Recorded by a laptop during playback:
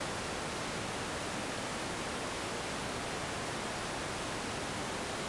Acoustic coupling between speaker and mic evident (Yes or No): No